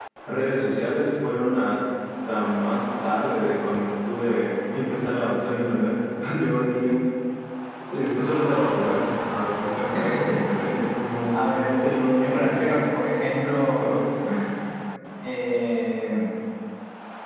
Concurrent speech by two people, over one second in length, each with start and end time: 11.3-12.8

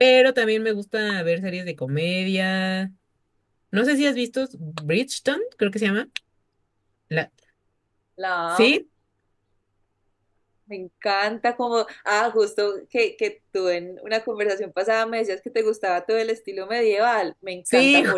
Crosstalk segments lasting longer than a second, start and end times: none

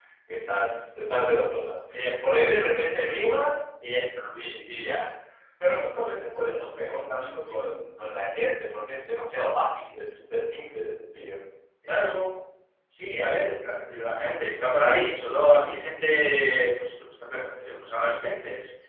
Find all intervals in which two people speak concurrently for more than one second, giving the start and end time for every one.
none

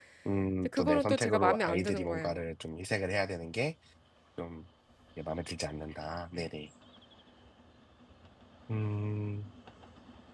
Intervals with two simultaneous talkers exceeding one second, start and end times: 0.6-2.4

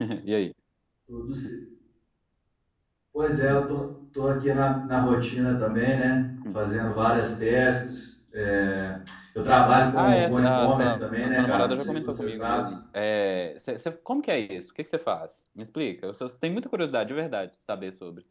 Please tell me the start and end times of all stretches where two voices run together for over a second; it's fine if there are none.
9.9-12.7

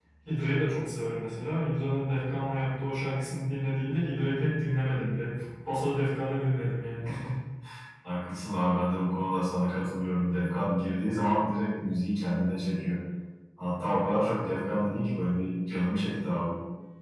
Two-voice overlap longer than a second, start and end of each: none

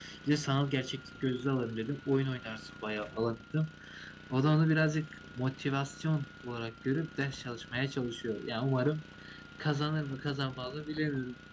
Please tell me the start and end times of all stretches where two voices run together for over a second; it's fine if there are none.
none

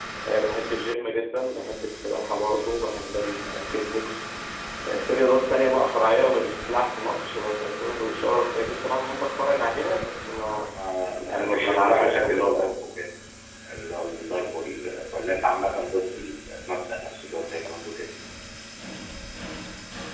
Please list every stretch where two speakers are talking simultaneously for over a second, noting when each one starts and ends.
11.3-12.7

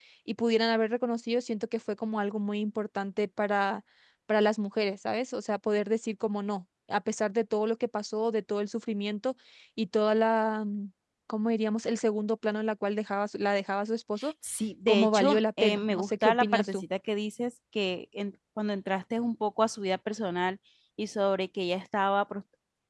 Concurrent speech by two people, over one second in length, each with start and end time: 14.9-16.8

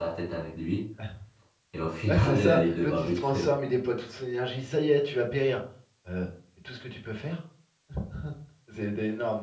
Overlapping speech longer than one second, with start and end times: 2.1-3.5

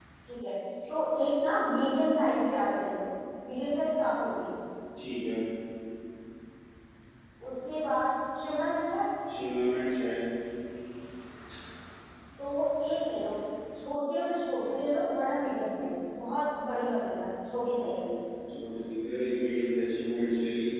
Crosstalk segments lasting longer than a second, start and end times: none

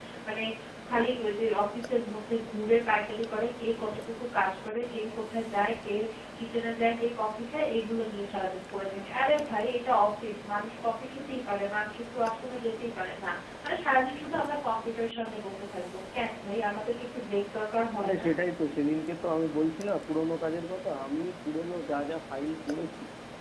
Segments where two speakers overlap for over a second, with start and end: none

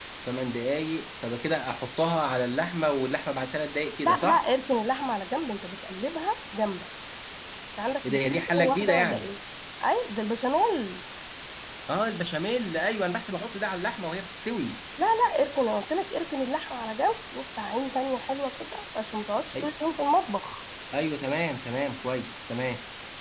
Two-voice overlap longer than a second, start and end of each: 8.0-9.3

